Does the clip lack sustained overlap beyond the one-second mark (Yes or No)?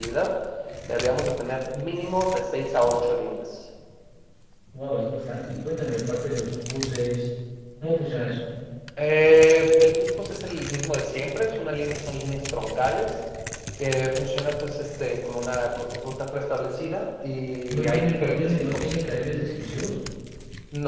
No